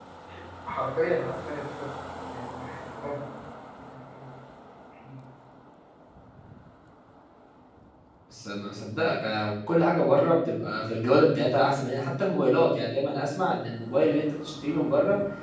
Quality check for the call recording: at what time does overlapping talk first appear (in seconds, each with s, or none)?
none